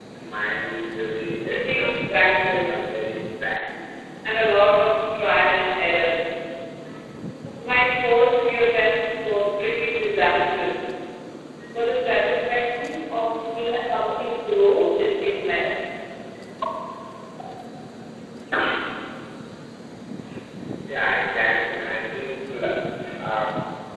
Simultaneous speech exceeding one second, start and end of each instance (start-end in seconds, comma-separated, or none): 1.5-2.8